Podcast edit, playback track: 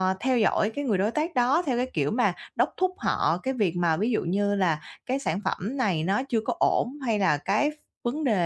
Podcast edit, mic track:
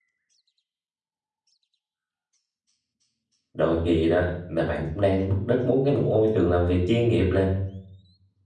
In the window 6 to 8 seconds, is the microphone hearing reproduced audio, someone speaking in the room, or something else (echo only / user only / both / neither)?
user only